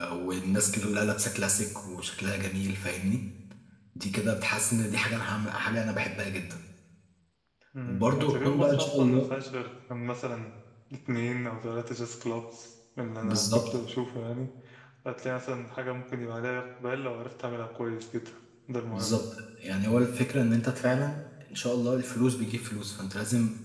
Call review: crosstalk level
present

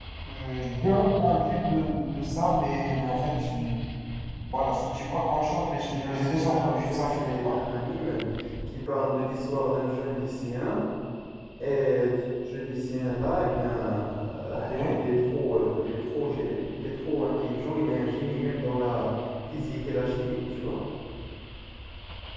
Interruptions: present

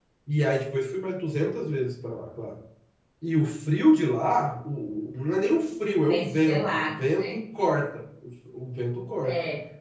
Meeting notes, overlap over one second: present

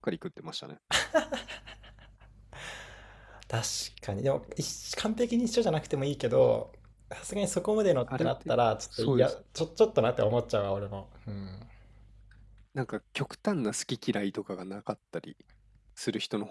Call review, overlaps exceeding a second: none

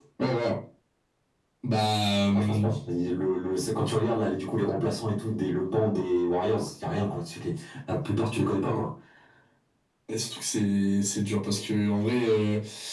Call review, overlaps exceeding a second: none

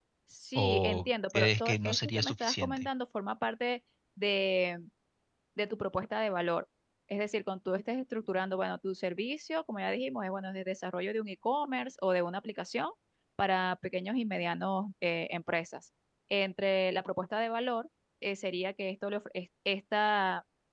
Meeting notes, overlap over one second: present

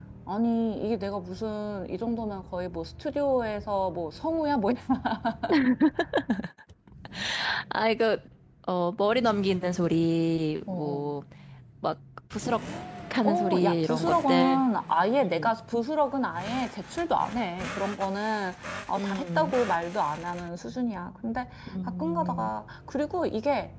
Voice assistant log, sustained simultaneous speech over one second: present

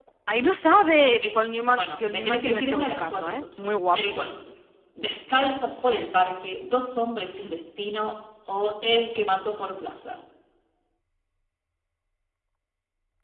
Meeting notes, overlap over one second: present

